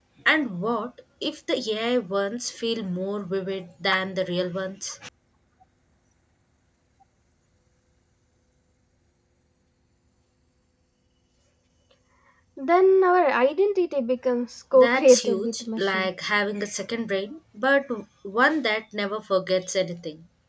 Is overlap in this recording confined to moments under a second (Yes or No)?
No